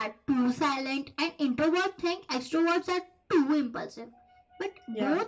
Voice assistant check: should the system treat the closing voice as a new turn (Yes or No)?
No